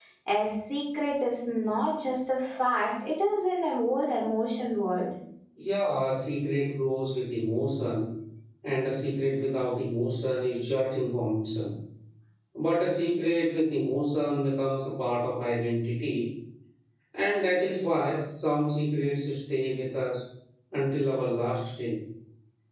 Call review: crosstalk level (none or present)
none